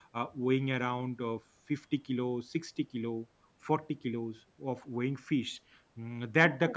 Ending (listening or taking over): listening